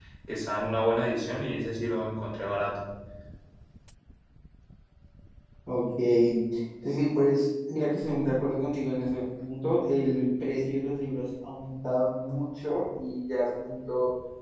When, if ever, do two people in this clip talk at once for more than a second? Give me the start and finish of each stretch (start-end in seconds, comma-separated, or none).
none